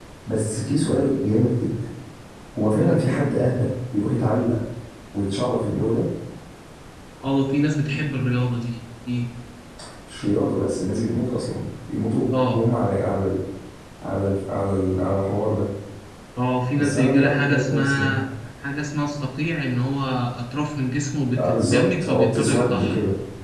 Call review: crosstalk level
present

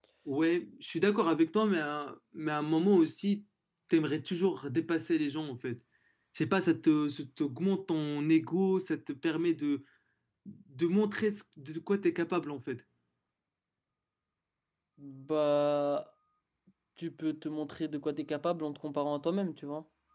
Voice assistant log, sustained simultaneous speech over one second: none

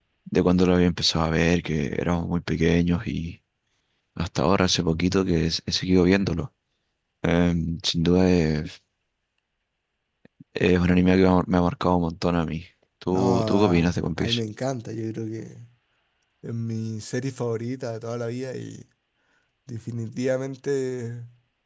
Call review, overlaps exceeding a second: present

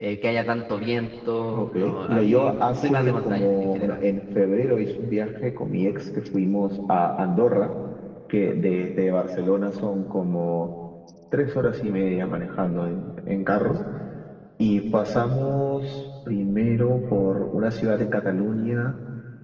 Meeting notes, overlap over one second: present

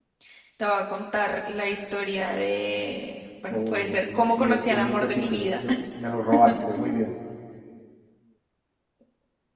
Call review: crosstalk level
present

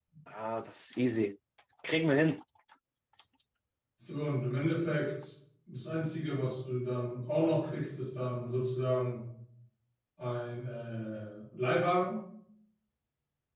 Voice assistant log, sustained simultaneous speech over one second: none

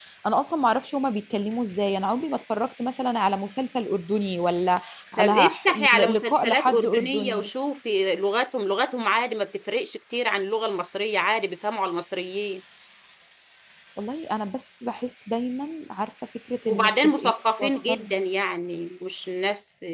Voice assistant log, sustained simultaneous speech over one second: present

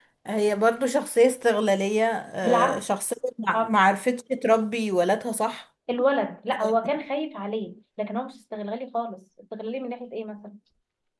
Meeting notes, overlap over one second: none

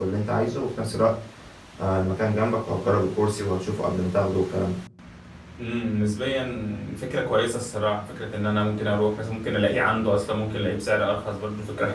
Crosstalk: none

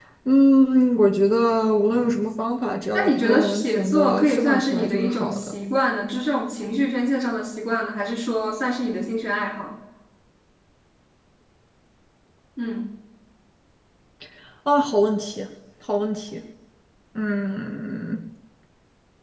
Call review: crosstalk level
present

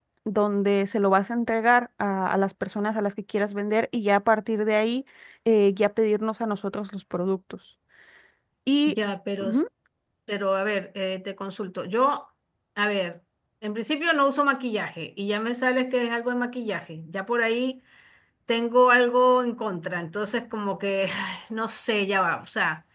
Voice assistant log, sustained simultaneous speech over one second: none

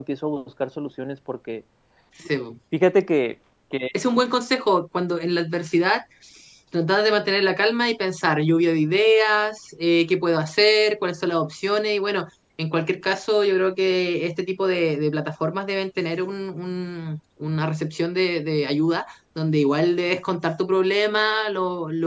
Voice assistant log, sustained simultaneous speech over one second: none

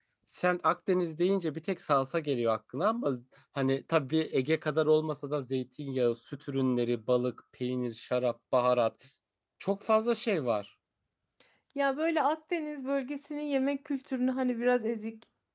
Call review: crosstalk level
none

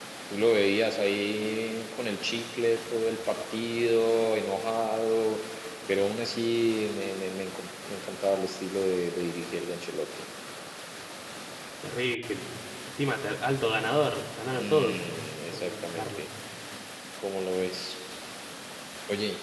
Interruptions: present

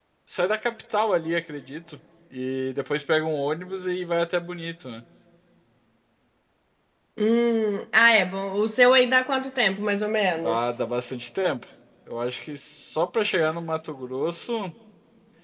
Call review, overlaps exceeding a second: none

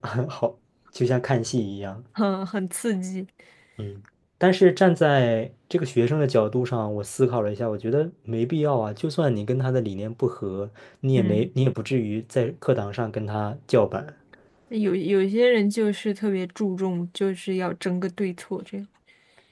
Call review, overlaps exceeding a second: none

